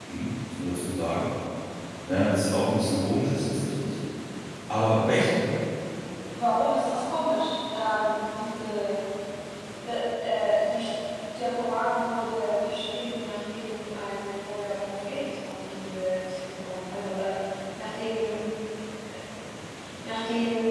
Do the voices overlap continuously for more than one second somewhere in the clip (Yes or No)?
No